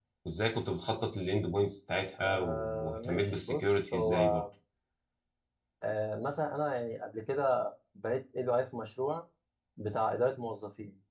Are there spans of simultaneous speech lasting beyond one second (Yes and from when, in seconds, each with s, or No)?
Yes, from 2.2 s